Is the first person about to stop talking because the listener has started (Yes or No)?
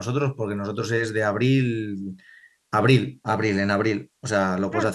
No